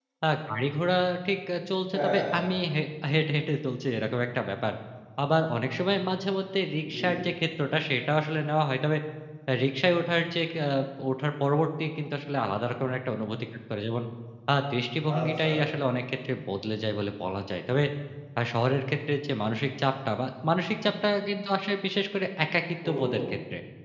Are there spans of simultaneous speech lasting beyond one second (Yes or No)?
No